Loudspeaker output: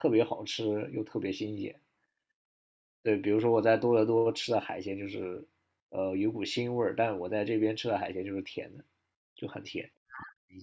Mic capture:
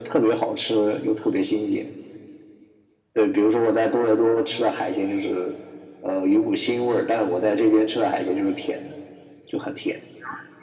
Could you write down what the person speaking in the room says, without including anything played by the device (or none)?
none